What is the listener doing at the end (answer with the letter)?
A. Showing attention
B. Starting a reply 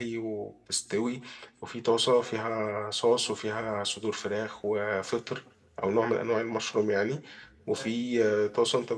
A